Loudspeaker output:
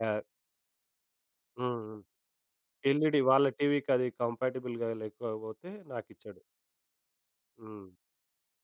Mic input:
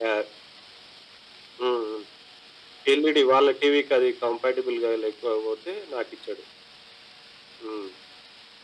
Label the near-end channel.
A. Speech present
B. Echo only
B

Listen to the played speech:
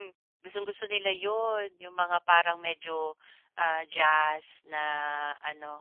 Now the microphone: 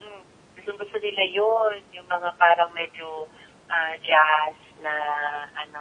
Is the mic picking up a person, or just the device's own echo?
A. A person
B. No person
B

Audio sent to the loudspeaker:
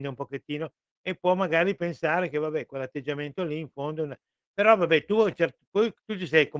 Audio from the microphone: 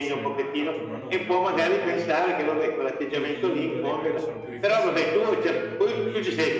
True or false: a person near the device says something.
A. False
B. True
B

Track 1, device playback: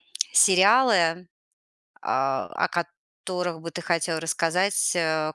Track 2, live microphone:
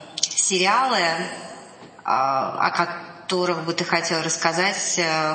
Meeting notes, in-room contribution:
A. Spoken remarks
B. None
B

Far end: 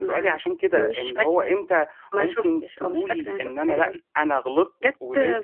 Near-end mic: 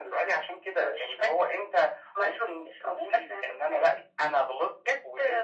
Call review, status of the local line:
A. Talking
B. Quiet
B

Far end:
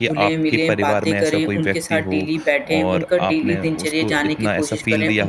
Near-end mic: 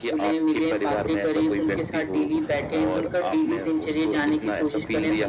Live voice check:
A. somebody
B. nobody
B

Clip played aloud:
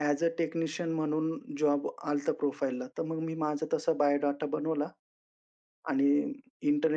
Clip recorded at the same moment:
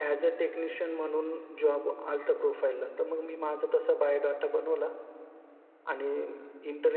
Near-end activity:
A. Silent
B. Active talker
A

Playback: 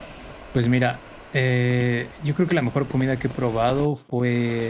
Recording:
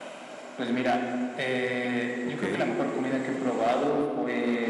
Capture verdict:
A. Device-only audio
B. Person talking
B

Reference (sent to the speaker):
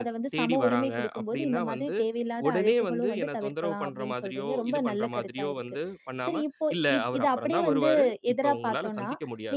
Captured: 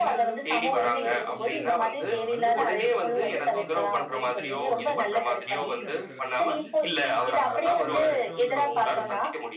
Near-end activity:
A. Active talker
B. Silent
A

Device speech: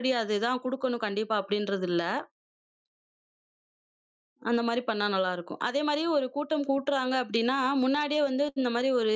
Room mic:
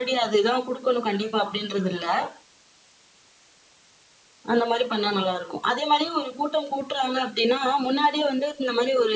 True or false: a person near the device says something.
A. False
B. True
A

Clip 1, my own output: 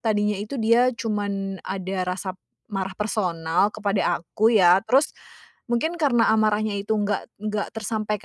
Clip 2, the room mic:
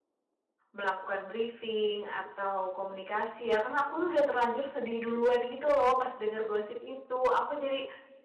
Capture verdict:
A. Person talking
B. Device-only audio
A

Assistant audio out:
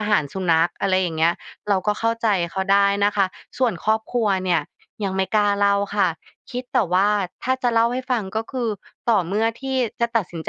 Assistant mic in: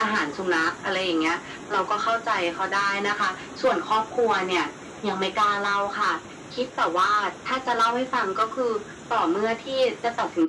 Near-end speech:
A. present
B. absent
B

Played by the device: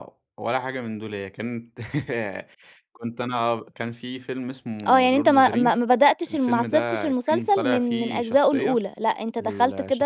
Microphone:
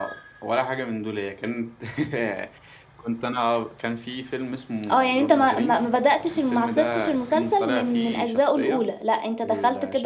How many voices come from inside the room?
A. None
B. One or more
A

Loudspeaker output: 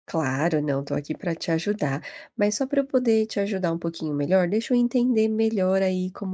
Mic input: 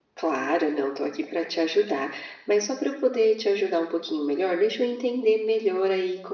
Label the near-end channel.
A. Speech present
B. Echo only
B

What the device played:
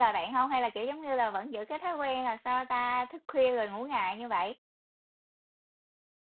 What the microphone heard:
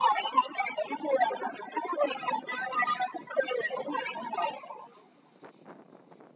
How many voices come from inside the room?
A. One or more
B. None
B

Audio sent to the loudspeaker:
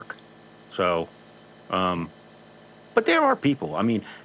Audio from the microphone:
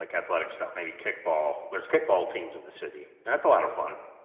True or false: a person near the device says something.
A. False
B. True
B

